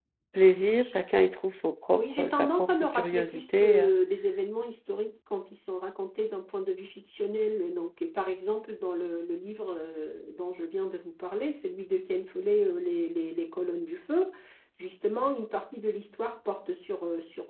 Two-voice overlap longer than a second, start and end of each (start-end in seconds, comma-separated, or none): 1.9-3.9